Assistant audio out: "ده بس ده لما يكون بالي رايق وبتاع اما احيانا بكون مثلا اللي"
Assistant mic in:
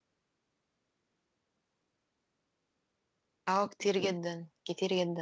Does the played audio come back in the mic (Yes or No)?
No